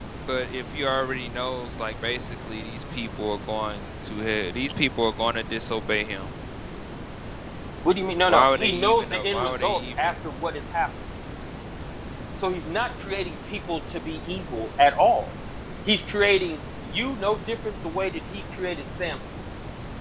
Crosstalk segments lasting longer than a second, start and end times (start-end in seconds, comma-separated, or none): 8.2-10.1